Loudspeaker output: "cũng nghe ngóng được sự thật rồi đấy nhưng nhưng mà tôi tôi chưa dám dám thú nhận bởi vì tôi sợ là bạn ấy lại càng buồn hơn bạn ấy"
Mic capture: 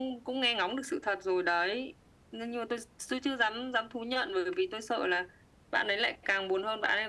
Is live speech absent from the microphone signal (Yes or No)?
Yes